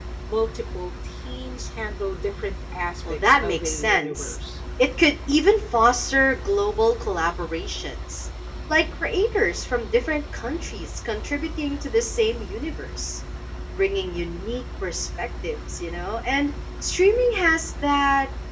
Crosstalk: present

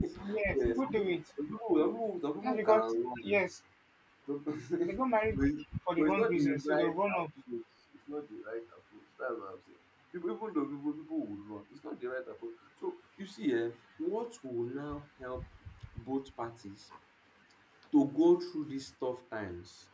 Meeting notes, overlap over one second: present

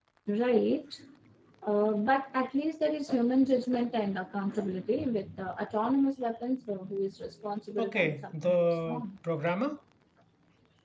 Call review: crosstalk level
present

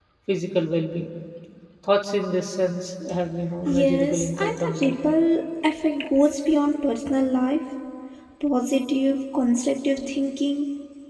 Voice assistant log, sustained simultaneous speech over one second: present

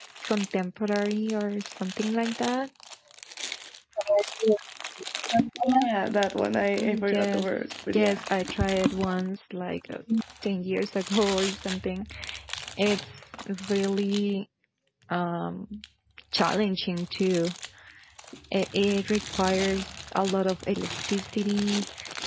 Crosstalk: present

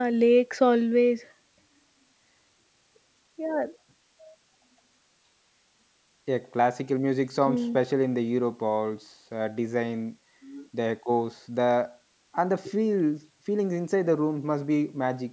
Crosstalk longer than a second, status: none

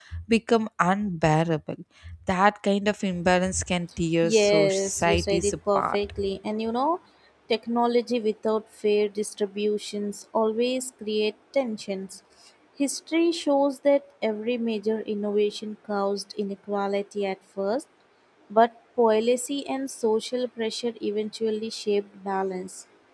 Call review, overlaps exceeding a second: present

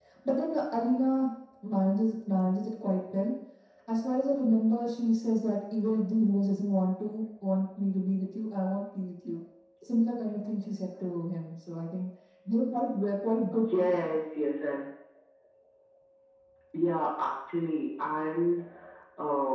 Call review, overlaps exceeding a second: none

